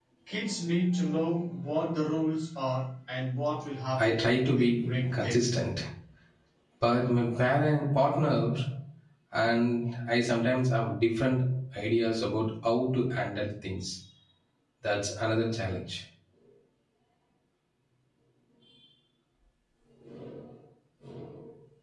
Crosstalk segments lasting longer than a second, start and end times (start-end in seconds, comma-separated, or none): 4.0-5.4